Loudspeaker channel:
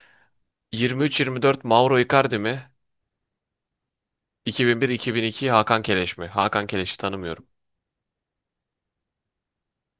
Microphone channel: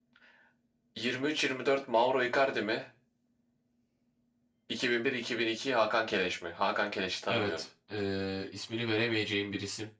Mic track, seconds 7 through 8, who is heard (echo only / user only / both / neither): both